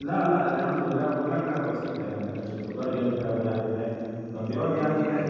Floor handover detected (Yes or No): No